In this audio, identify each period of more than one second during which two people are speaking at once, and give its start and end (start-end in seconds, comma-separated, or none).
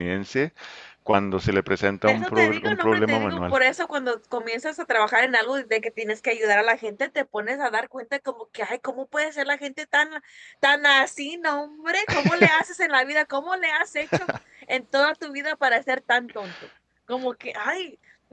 2.1-3.5